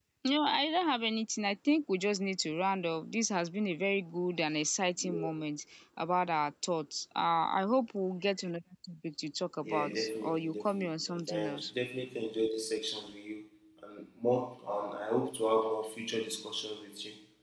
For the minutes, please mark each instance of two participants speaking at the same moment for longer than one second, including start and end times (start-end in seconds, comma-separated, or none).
9.7-11.7